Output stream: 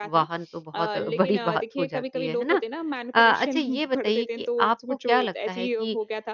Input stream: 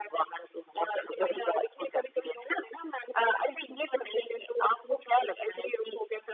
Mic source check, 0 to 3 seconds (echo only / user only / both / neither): echo only